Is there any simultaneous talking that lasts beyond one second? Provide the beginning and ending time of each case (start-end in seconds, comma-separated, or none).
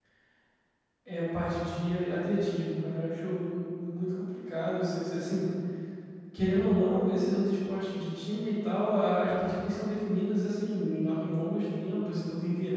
none